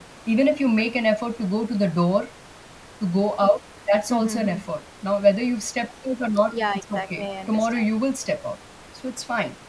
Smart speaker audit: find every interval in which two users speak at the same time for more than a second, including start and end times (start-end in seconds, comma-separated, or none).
6.5-7.8